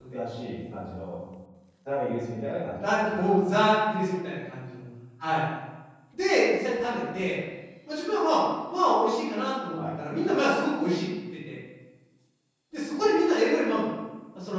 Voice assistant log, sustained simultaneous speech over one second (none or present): none